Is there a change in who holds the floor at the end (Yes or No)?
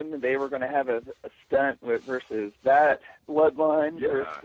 Yes